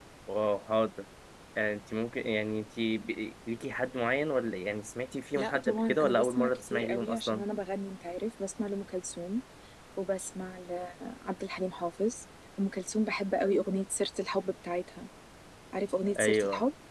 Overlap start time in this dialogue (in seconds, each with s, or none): 5.3 s